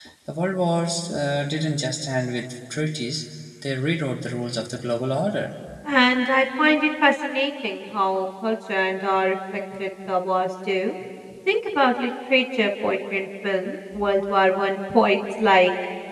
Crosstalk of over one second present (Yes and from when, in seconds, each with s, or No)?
No